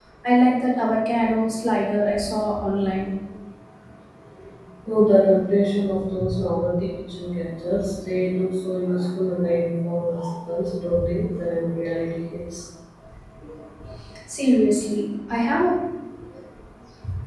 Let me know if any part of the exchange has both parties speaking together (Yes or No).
No